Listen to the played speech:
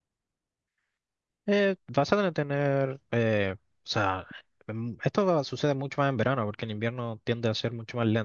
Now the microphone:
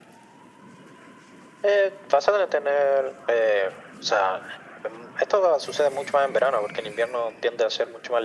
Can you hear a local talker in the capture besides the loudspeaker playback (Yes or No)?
No